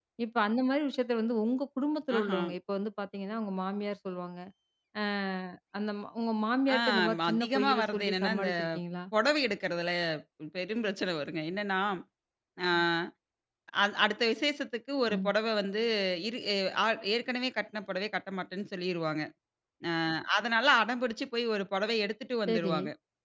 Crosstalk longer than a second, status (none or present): present